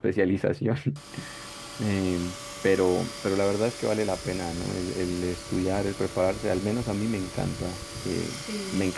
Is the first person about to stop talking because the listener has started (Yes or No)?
No